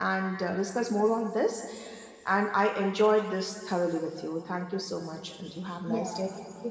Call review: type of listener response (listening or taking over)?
taking over